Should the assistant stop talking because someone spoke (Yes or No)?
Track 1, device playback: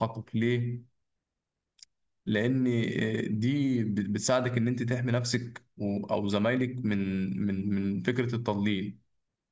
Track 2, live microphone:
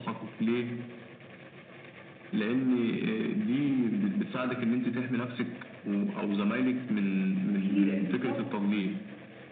Yes